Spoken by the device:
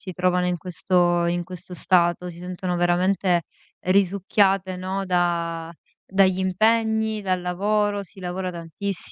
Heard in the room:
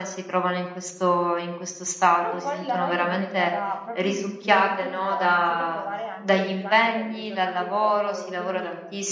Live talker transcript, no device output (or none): Però poi la noia è diventata proprio un sentimento che ho iniziato a provare anche durante le le giornate di lavoro, quindi